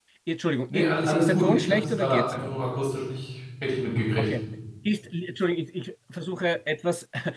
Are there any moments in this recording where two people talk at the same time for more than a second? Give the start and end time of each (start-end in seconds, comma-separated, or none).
0.7-2.4